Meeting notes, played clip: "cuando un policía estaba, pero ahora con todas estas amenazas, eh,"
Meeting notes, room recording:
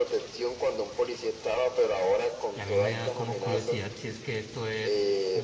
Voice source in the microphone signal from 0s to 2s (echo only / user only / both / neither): echo only